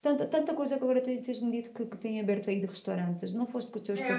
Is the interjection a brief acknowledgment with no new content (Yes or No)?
No